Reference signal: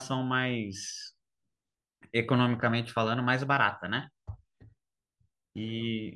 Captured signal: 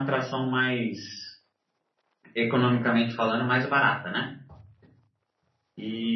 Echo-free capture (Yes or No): No